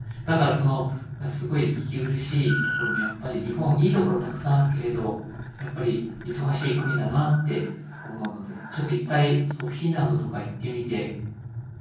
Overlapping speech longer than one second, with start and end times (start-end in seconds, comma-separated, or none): none